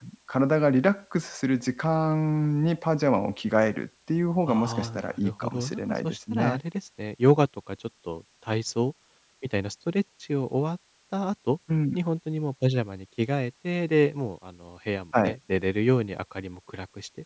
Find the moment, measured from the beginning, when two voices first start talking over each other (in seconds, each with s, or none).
4.5 s